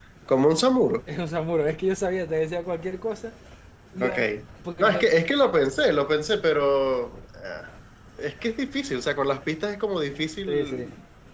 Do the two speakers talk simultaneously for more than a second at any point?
No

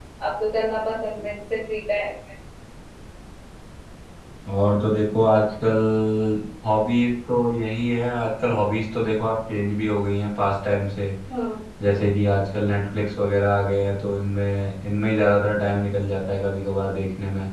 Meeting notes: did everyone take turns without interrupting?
Yes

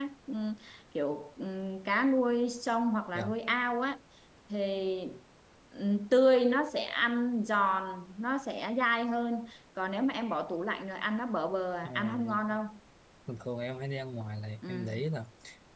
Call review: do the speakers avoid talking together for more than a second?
Yes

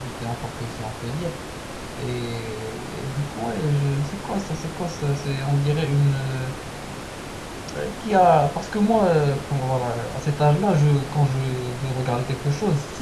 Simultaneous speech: No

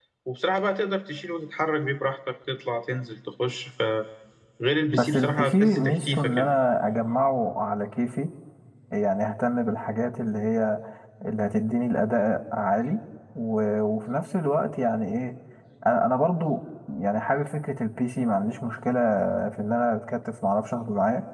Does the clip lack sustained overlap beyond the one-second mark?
No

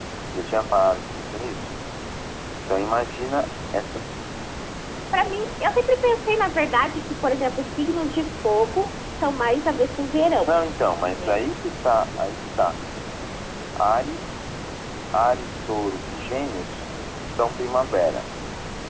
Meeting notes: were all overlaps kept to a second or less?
Yes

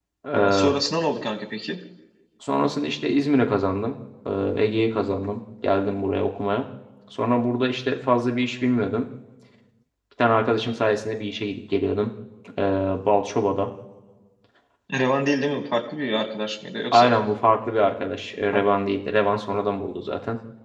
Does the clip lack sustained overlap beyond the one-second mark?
Yes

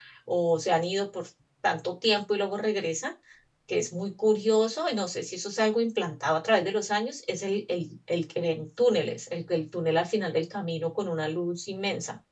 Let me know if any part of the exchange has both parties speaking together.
No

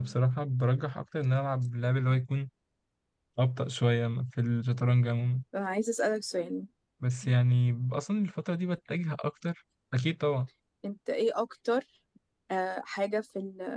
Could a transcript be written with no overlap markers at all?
Yes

